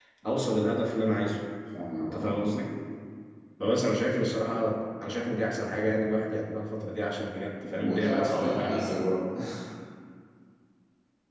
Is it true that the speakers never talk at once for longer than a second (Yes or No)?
No